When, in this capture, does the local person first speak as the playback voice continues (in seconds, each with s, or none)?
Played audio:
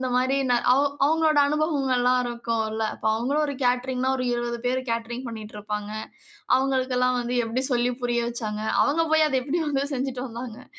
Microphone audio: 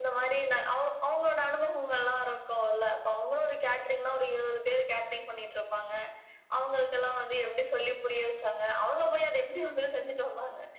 none